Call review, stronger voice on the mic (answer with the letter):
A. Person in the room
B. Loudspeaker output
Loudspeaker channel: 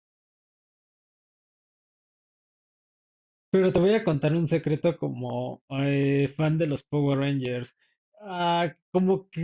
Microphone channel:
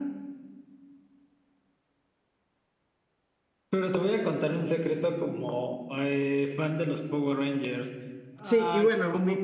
A